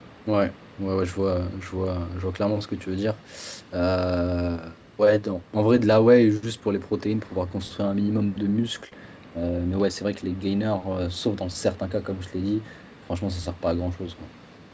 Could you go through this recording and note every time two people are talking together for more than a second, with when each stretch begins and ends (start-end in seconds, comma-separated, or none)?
none